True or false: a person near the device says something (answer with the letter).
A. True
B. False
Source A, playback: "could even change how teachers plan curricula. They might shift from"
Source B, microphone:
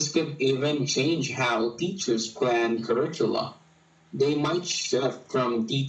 B